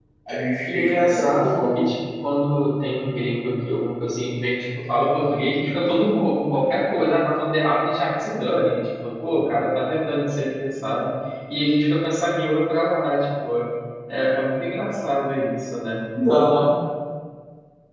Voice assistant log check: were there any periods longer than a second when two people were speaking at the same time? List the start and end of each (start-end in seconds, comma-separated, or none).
0.7-1.9